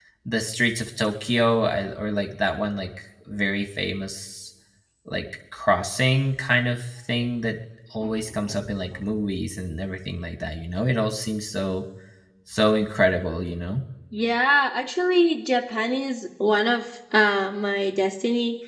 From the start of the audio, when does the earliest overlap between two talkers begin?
none

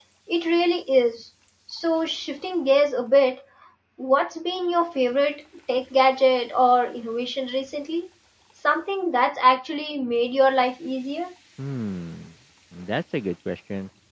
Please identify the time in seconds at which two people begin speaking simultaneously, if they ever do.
none

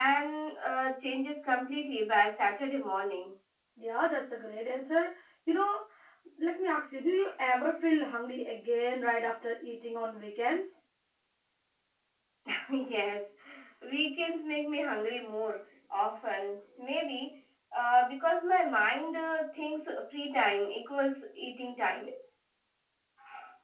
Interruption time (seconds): none

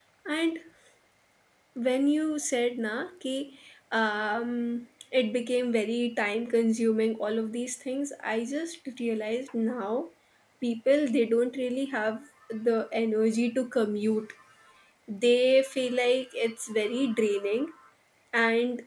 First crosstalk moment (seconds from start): none

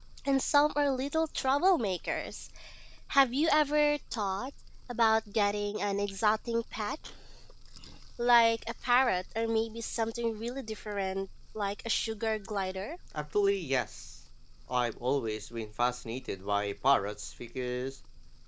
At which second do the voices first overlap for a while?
none

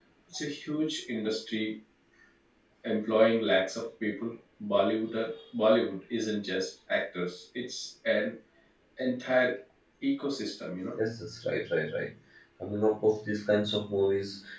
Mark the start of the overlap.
none

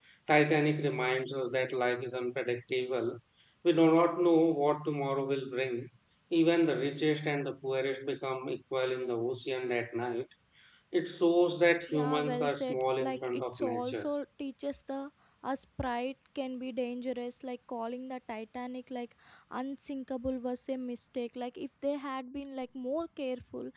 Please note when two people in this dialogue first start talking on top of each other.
11.9 s

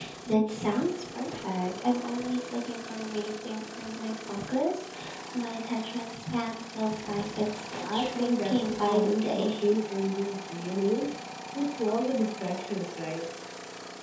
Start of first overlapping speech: 7.8 s

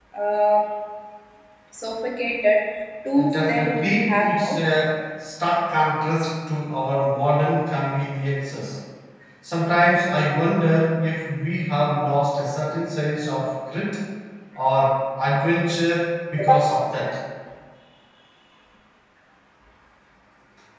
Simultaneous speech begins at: 3.1 s

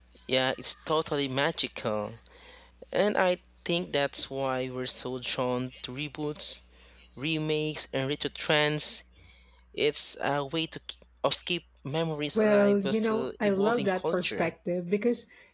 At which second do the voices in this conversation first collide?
12.3 s

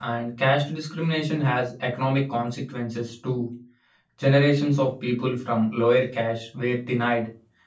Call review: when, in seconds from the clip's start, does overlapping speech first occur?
none

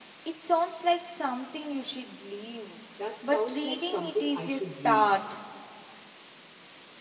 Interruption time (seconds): 3.2 s

